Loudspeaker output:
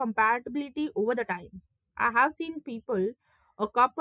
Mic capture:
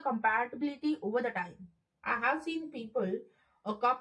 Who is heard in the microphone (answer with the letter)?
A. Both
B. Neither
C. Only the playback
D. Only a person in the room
C